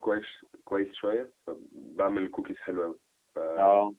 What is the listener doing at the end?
listening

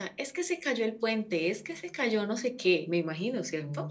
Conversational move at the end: taking over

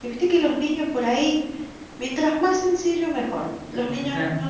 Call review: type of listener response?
listening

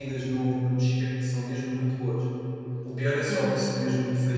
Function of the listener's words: listening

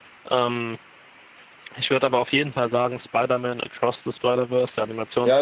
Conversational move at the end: taking over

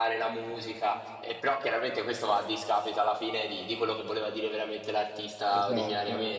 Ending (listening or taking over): taking over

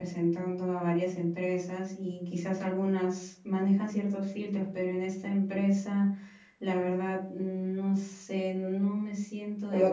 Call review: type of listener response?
taking over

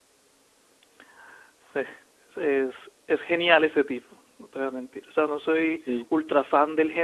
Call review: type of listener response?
listening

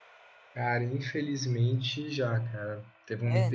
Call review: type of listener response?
listening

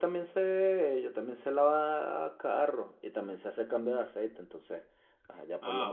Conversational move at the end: taking over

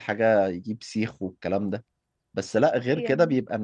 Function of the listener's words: listening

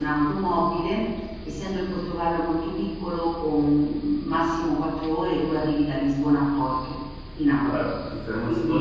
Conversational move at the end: taking over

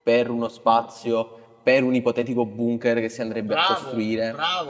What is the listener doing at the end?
taking over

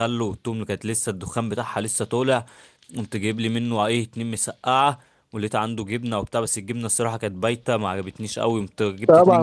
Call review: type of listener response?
taking over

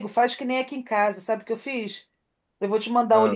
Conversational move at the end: listening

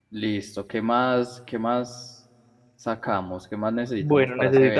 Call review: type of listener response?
taking over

